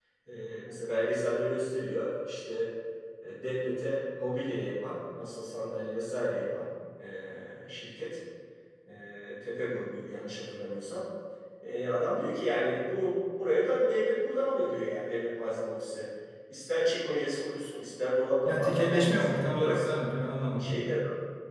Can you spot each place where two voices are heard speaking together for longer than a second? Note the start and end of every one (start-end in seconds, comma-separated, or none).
18.4-19.9